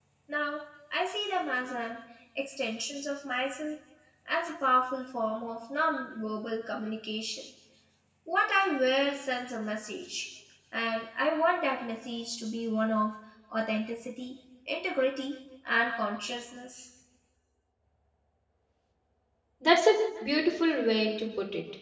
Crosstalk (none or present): none